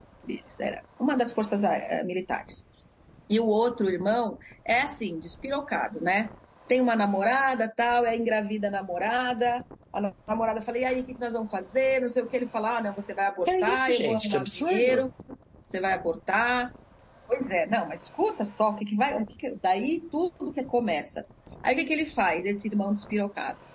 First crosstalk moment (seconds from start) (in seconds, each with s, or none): 13.5 s